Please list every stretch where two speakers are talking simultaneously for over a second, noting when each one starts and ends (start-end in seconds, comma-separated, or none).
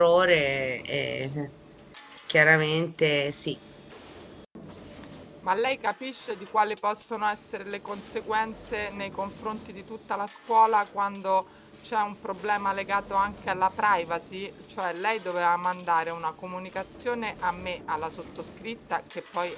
none